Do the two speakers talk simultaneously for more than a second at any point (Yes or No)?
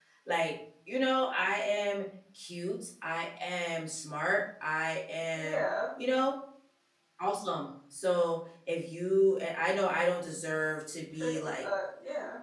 No